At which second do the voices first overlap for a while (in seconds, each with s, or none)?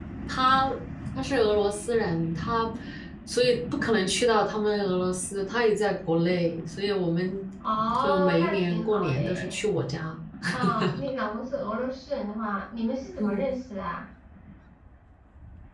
8.0 s